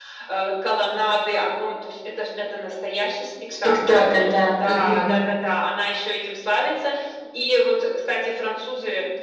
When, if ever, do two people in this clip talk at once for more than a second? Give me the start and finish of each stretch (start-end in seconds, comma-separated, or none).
3.6-5.1